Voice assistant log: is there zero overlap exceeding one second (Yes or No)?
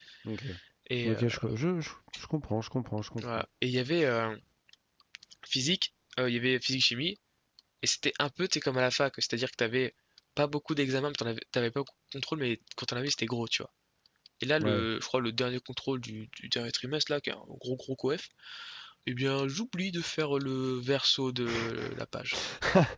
Yes